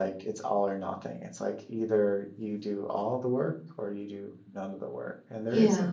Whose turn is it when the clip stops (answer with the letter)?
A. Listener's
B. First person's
B